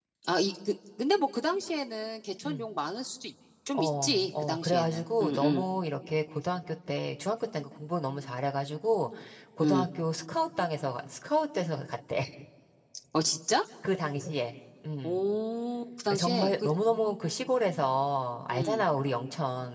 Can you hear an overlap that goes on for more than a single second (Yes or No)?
Yes